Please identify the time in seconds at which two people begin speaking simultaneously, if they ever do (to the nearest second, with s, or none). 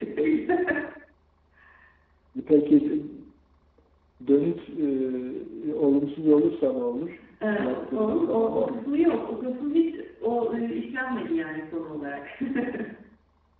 8 s